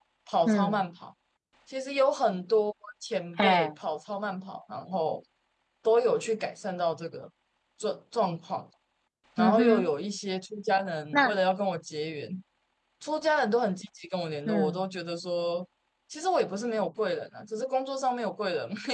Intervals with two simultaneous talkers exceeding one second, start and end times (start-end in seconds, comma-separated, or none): none